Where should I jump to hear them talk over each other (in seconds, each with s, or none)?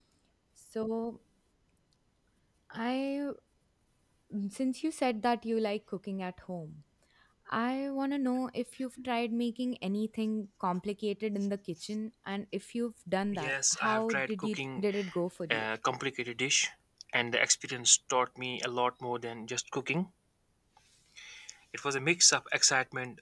13.3 s